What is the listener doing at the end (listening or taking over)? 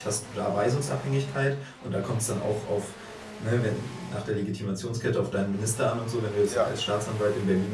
listening